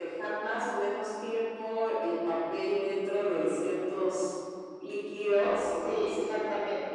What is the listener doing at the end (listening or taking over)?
taking over